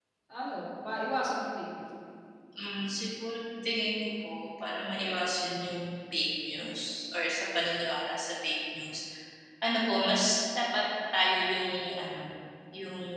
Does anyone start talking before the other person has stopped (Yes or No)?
No